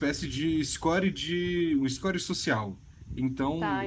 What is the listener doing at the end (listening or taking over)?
listening